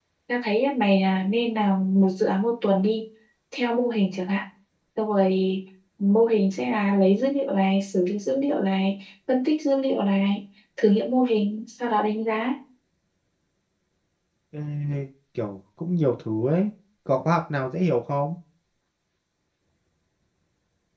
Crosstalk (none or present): none